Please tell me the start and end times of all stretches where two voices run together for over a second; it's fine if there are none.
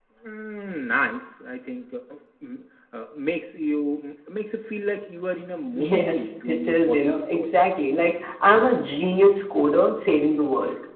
5.8-7.5

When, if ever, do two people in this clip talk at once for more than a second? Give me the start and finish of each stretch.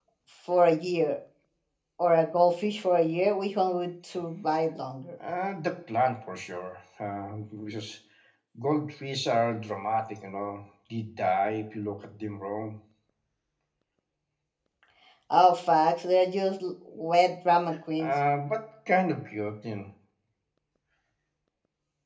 none

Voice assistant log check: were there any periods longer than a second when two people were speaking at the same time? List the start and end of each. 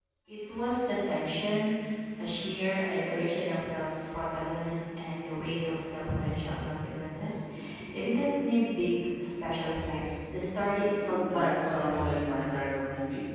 11.1-12.4

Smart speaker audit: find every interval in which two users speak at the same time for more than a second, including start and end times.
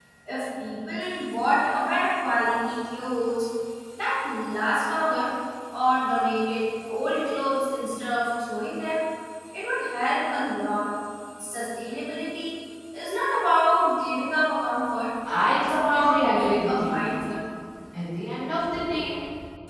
15.6-17.0

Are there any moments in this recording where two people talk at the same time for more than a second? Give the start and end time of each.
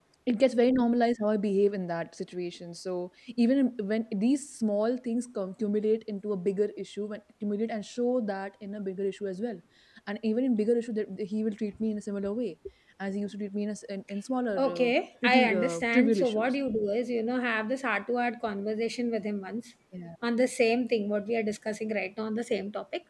15.3-16.5

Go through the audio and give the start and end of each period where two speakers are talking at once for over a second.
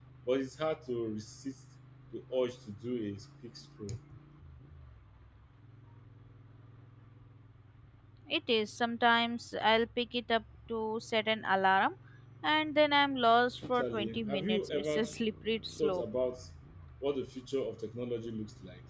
13.6-15.1

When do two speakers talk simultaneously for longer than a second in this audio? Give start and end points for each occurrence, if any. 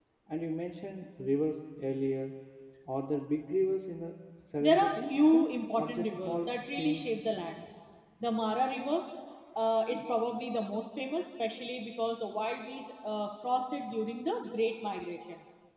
4.6-7.1

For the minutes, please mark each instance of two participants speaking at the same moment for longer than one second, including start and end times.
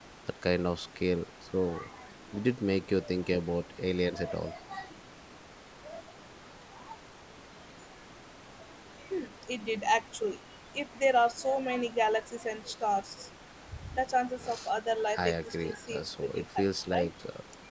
15.2-17.1

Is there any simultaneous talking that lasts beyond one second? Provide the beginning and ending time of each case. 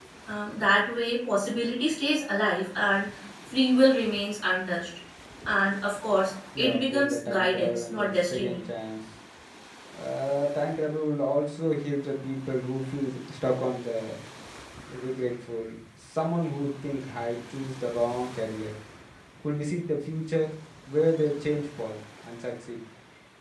6.6-8.6

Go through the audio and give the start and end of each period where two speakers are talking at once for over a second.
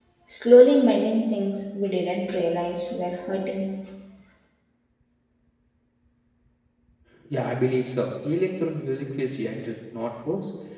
none

